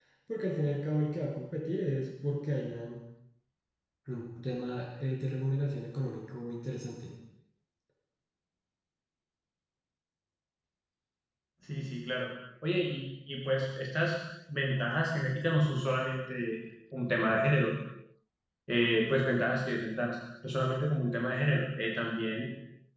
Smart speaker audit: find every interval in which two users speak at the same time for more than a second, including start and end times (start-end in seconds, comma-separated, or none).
none